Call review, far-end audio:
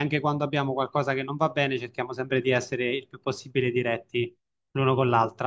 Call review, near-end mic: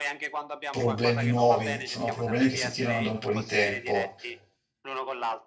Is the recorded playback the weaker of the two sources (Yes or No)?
Yes